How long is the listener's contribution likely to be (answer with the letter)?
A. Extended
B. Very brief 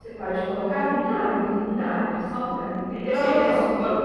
B